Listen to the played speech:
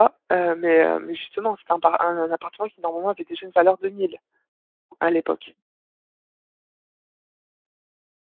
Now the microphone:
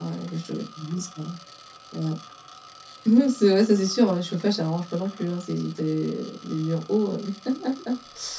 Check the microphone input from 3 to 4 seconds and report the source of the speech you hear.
user only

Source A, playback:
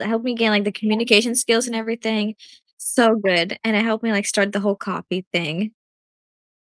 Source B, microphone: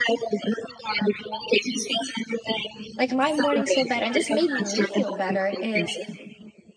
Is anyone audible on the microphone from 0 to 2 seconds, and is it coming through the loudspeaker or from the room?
echo only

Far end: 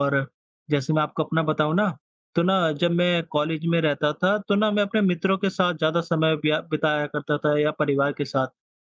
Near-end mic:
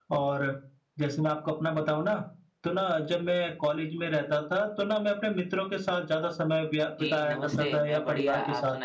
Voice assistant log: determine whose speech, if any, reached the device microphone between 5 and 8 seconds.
both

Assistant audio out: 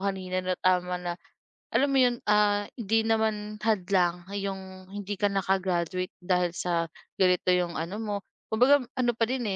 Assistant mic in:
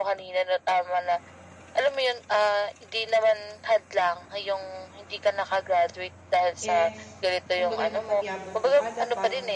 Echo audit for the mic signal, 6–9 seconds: both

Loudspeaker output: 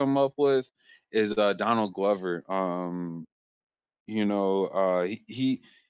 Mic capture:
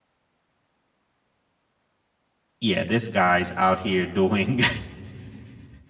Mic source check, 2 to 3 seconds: user only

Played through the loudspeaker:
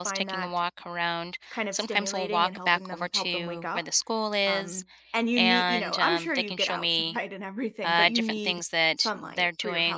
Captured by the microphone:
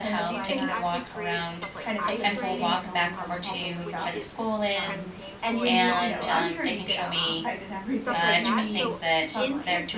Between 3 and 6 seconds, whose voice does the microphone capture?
both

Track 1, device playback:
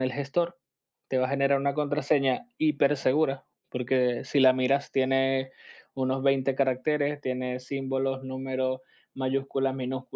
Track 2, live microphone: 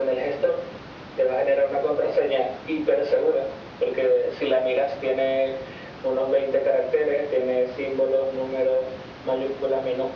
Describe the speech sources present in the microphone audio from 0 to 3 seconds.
echo only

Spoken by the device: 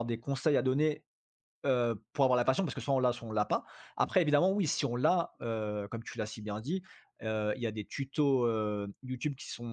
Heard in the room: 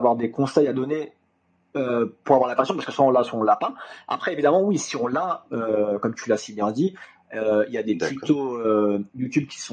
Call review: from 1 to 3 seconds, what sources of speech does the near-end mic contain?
echo only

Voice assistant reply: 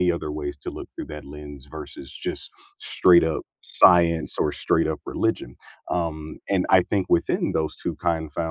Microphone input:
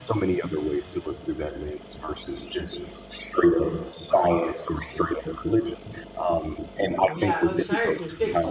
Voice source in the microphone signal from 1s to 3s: echo only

